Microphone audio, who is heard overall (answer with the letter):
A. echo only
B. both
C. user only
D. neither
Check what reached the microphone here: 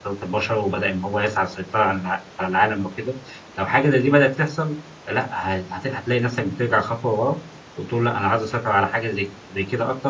C